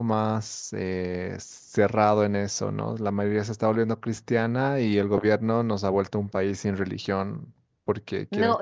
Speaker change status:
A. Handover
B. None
A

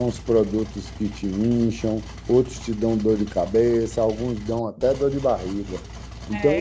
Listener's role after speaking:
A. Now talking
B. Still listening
A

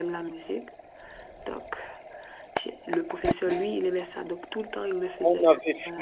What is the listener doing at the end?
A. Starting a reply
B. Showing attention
A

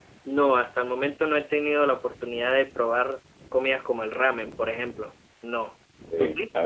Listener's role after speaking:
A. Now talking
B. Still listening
A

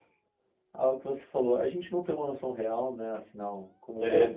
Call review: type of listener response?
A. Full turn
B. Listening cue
B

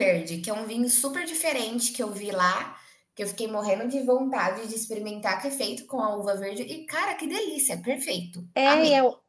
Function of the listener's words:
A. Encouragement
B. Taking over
B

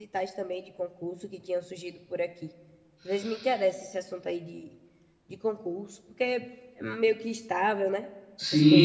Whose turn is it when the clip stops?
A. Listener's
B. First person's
A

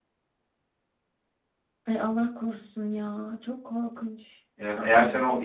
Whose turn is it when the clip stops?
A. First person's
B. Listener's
B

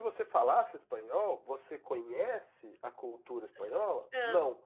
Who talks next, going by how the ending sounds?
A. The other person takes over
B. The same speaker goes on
B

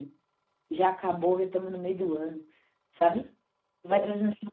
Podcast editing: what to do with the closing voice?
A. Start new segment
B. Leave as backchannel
B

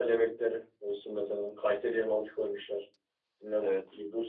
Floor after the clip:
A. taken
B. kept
B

